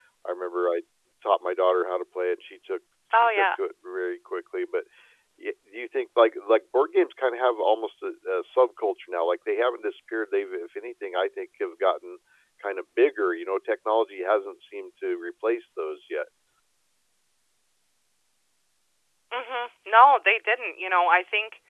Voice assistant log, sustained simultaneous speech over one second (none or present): none